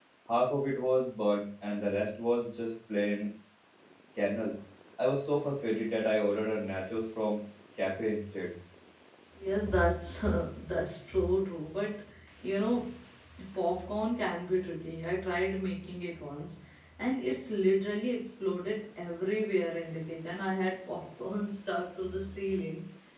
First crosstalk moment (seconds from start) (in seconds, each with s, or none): none